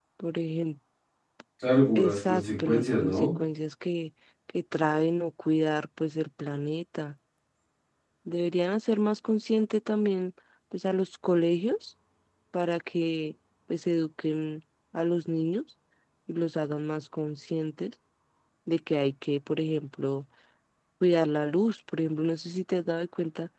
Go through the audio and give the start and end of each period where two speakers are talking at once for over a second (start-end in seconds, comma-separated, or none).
2.0-3.3